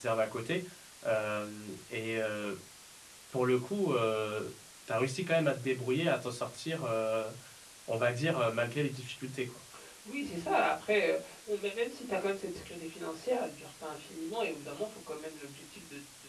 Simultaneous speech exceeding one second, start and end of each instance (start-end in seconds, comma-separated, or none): none